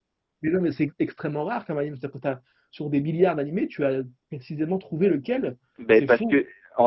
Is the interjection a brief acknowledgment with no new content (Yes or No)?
No